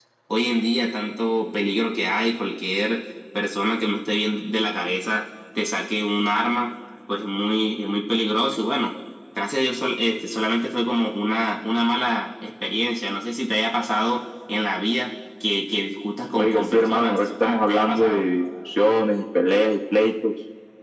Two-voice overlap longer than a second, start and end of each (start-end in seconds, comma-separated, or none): 16.4-18.2